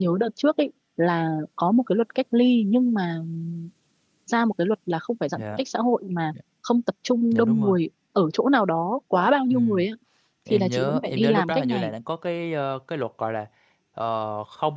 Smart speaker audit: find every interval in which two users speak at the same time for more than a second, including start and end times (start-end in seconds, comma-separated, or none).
10.5-11.9